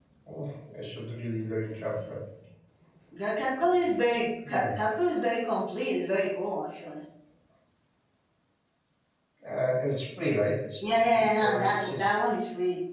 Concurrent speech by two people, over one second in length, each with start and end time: 10.8-12.2

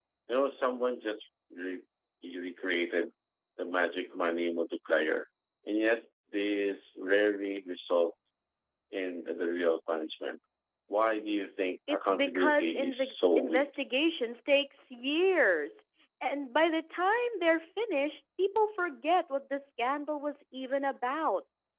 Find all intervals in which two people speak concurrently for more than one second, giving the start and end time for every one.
11.9-13.7

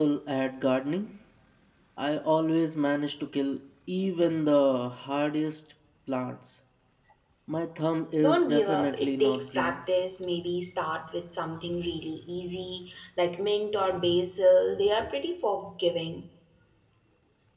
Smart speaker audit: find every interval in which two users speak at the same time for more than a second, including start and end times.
8.2-9.8

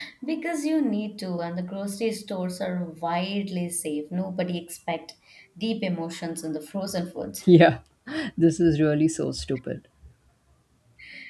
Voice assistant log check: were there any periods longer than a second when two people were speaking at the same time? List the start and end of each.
none

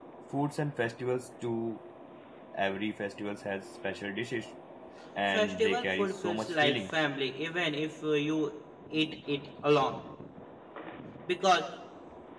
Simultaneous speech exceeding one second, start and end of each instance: 5.3-6.8

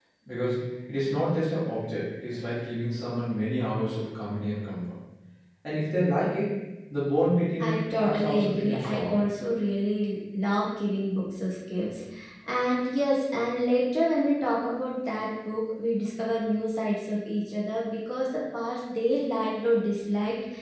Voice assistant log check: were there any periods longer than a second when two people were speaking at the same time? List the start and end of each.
7.6-9.2

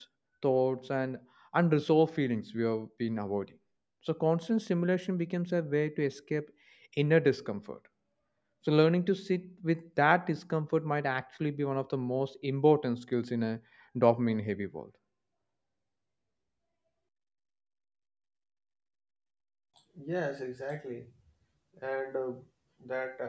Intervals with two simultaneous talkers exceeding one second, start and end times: none

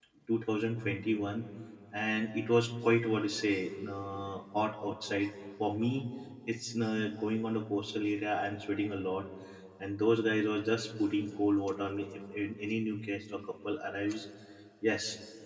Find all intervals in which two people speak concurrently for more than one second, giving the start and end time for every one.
none

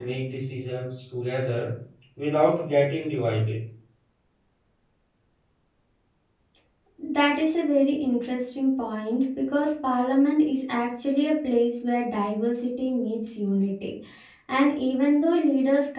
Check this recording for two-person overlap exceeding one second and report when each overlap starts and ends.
none

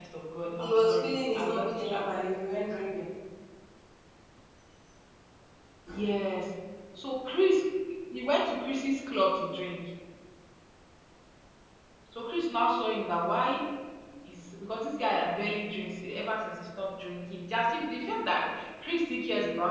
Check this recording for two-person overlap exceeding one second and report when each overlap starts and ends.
0.6-2.2

